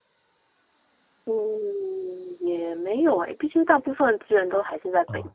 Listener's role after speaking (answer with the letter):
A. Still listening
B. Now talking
B